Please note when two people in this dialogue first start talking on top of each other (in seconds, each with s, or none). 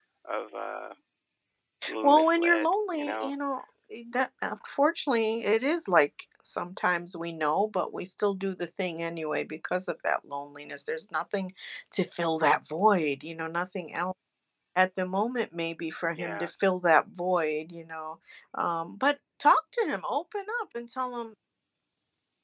2.0 s